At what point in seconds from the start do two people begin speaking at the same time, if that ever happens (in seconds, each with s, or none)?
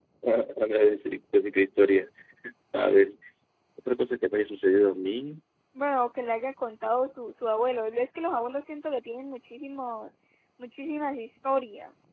none